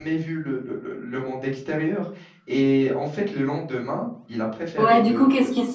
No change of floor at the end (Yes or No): No